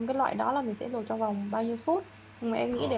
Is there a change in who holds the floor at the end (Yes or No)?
No